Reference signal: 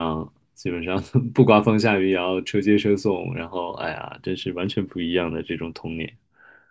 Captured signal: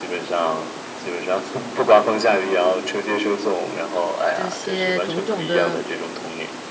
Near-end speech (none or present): present